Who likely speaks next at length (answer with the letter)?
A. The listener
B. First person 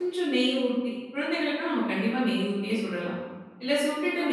B